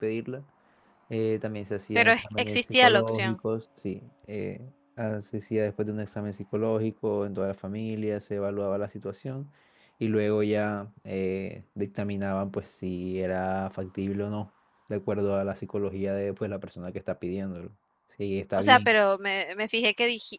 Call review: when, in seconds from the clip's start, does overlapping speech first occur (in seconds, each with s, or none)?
1.9 s